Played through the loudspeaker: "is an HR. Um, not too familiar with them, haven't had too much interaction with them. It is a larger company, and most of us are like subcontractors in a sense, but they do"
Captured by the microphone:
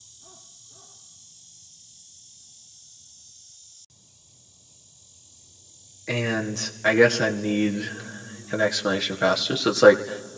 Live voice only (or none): And I guess I need an explanation faster. So it's like